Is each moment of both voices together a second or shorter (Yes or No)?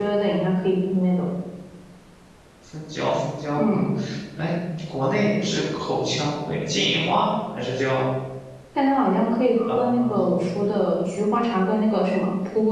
Yes